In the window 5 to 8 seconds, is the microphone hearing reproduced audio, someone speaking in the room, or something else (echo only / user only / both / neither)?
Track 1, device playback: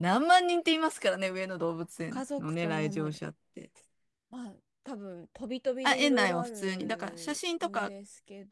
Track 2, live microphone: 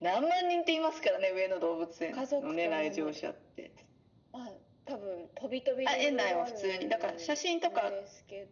echo only